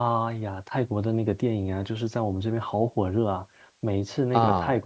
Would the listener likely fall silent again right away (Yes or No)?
Yes